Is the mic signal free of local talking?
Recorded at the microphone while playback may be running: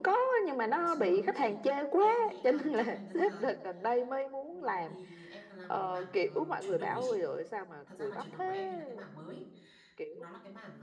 No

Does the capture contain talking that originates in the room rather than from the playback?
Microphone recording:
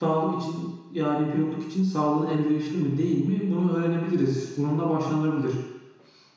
Yes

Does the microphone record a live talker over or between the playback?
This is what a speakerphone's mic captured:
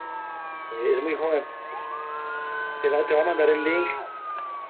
Yes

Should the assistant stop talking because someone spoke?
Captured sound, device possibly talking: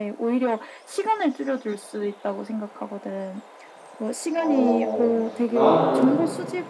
Yes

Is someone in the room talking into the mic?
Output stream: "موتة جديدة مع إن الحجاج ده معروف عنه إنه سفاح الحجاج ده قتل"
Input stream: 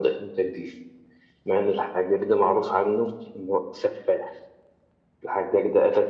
No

